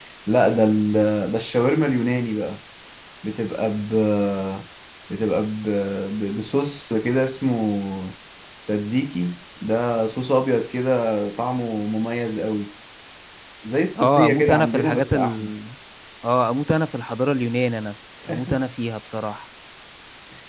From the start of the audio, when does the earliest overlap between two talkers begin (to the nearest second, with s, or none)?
14 s